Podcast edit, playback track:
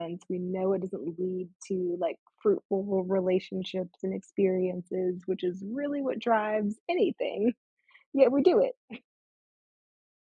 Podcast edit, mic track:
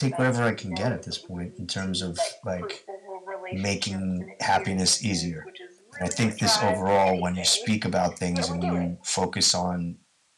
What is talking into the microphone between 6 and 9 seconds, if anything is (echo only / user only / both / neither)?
both